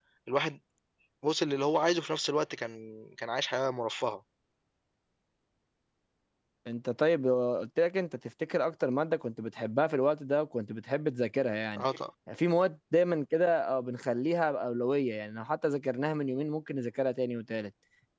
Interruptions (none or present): none